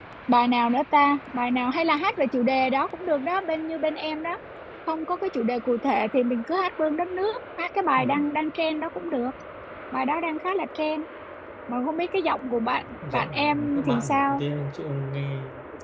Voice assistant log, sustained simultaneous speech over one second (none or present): present